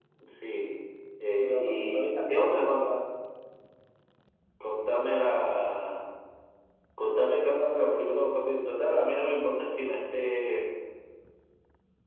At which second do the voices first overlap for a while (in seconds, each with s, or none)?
1.4 s